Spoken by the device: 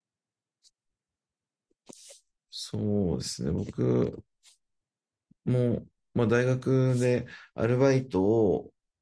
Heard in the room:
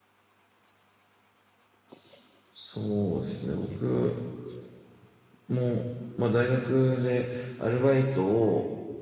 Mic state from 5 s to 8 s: echo only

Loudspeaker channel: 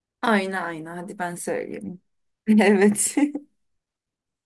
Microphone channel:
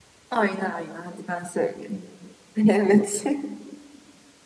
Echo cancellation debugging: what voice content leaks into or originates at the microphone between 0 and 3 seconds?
echo only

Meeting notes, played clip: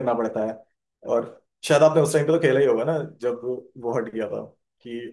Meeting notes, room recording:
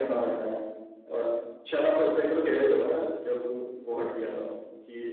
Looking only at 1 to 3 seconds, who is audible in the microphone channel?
echo only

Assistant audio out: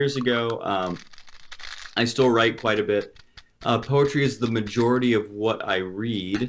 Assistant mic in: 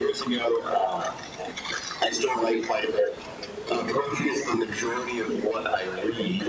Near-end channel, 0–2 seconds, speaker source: echo only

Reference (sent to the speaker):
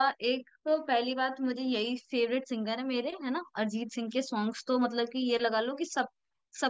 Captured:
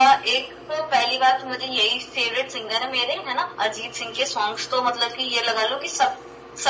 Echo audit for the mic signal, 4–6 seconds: echo only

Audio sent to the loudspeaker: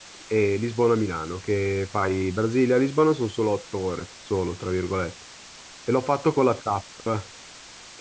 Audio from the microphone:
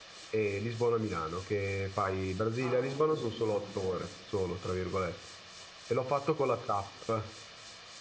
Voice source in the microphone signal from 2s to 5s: both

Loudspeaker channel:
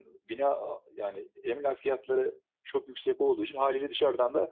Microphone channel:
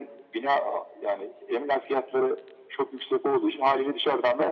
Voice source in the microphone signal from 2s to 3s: echo only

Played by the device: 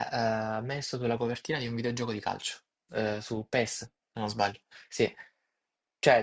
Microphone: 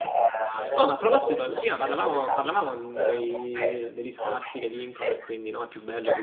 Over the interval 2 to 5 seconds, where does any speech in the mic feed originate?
both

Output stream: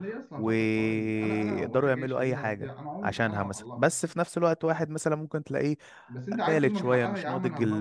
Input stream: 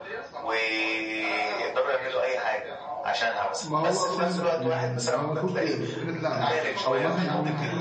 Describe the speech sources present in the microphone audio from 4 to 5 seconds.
both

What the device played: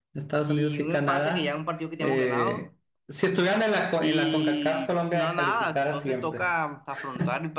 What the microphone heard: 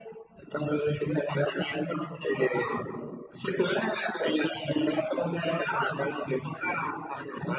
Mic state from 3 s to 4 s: echo only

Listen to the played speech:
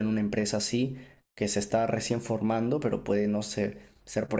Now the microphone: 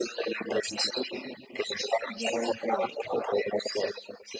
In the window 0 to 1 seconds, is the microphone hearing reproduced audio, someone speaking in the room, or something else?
echo only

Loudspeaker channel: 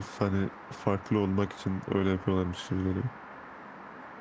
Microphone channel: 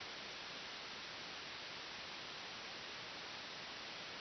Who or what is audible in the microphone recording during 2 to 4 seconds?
neither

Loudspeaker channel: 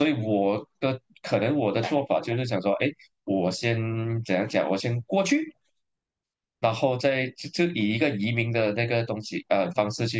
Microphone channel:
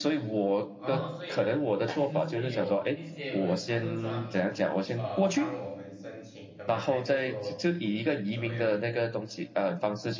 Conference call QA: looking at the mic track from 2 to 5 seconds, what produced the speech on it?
both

